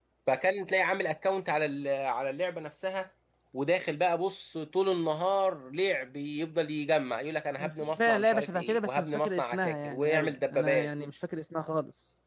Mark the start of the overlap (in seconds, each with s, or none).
7.6 s